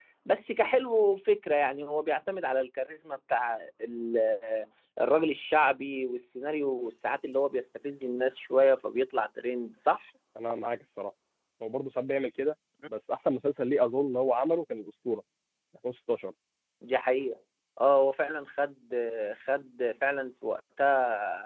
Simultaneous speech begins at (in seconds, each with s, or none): none